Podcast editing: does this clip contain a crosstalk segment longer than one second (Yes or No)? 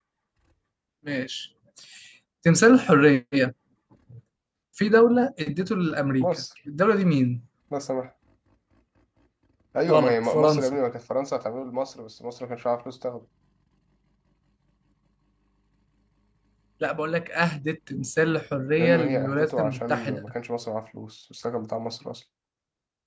Yes